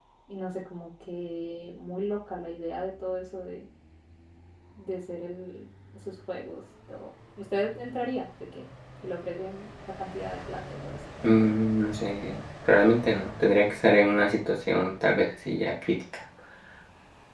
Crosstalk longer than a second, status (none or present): none